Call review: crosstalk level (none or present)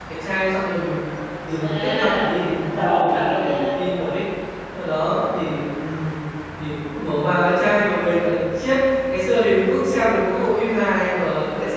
present